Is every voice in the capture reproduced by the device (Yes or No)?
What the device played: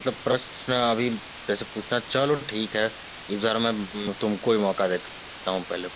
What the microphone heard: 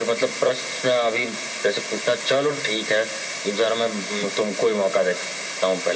Yes